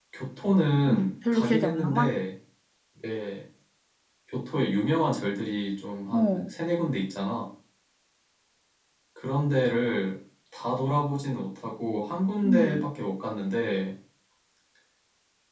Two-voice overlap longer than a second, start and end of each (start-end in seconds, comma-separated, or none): 0.9-2.2